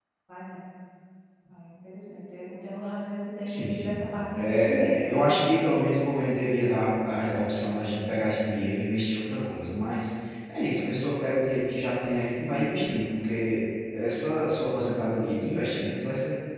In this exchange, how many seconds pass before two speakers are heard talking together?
3.4 s

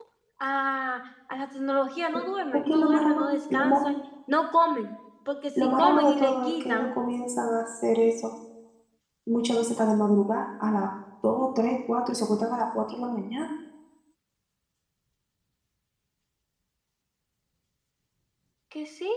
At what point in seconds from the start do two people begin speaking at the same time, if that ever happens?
2.5 s

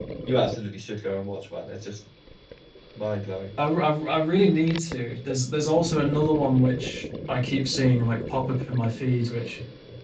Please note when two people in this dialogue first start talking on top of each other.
none

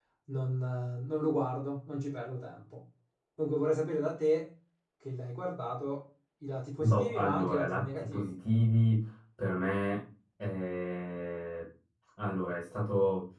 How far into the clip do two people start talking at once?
6.8 s

